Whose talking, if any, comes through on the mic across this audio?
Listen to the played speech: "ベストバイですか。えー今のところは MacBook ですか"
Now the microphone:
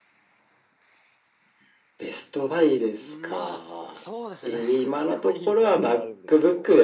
both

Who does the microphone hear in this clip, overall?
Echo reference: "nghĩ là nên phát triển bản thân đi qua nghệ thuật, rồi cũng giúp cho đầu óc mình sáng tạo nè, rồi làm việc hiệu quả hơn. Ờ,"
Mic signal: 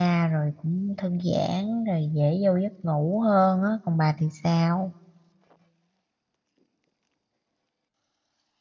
user only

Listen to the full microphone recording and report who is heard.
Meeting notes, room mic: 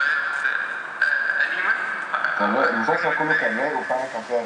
both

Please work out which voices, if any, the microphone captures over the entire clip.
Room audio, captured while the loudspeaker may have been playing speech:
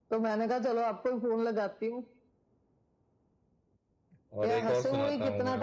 both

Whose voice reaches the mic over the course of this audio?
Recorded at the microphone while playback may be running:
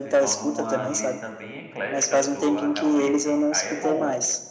both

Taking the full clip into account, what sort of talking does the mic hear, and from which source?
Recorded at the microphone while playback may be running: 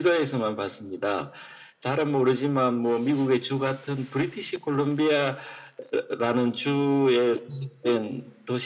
echo only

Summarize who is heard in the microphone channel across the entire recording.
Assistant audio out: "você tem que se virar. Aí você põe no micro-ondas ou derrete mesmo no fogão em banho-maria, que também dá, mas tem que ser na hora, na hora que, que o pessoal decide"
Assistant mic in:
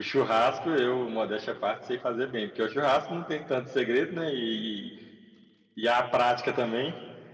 user only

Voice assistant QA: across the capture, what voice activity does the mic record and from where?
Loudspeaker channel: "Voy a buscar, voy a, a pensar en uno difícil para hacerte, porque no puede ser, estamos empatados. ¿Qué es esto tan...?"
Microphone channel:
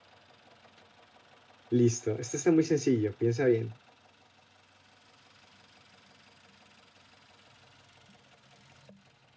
user only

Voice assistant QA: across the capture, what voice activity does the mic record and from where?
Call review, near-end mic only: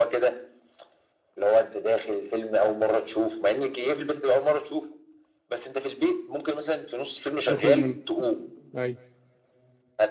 both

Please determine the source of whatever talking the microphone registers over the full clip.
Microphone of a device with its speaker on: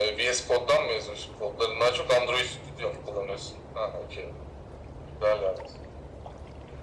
echo only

